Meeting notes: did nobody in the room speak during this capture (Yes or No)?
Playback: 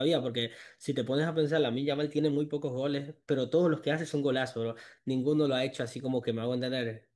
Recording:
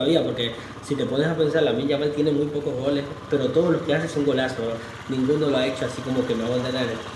Yes